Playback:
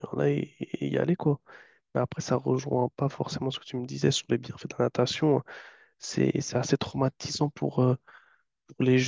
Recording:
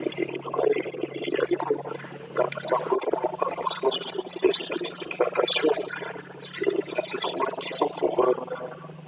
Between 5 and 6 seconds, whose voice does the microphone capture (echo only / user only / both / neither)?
echo only